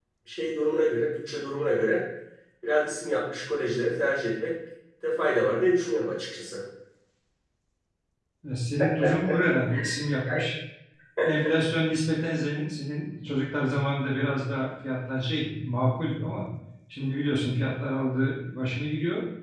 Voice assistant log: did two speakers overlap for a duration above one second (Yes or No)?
No